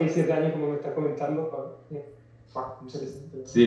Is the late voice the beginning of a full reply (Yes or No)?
Yes